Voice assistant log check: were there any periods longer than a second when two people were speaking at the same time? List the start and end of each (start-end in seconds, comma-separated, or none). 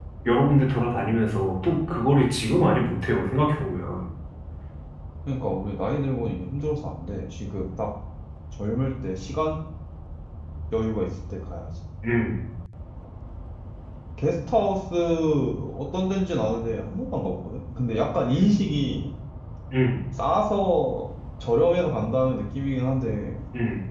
none